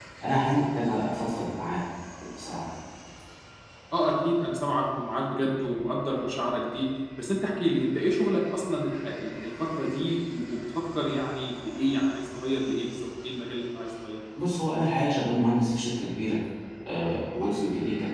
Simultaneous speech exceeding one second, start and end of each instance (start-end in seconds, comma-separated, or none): none